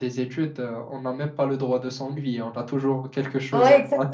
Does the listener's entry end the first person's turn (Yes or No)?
Yes